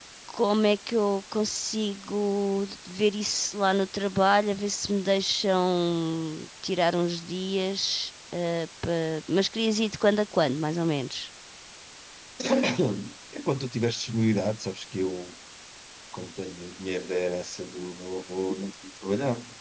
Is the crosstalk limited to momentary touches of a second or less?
Yes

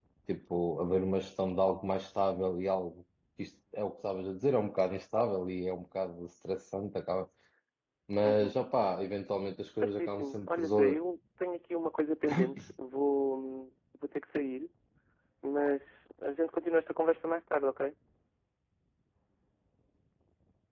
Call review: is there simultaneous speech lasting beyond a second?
Yes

